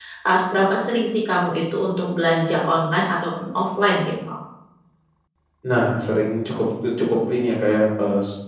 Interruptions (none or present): none